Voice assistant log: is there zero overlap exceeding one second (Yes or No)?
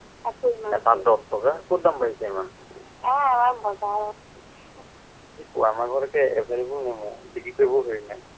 Yes